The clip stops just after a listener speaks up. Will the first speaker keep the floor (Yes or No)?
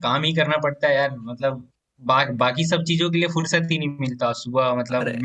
Yes